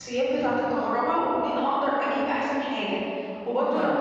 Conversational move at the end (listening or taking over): listening